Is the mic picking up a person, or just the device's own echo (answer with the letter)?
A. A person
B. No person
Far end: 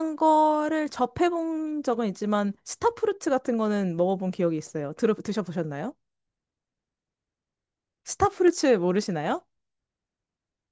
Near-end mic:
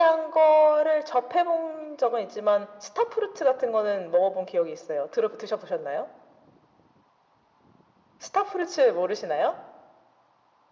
B